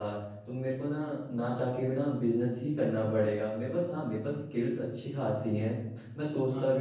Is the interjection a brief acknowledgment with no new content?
Yes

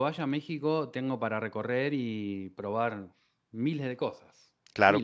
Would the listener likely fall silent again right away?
No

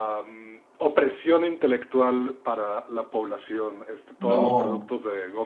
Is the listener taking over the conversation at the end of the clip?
No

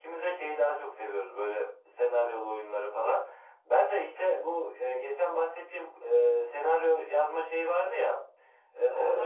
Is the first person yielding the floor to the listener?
No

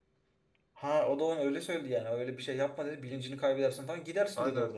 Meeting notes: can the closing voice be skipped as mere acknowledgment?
No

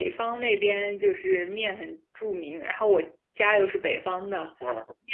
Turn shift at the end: No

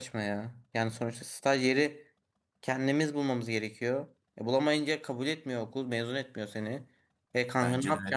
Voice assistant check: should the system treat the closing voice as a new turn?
No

